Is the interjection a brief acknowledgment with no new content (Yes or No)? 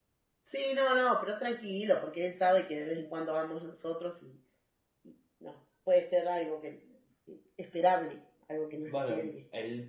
No